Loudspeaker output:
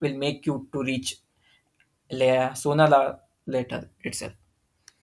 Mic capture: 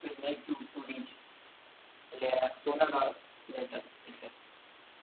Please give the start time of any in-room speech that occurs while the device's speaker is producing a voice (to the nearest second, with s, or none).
none